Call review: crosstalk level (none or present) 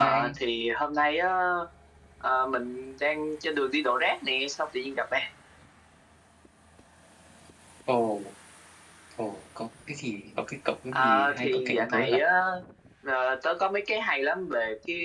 present